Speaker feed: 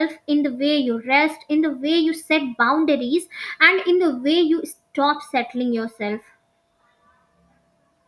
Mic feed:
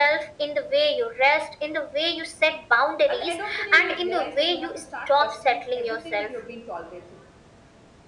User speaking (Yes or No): Yes